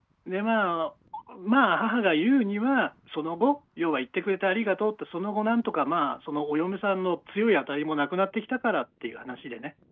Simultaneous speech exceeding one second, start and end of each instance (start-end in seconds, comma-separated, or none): none